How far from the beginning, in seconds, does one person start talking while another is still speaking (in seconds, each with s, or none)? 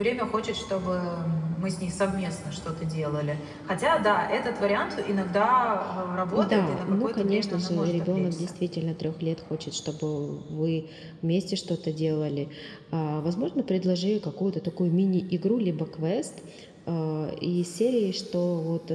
6.3 s